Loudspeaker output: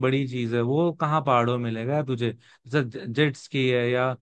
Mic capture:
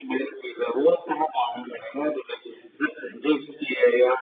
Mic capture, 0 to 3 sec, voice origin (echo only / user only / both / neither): echo only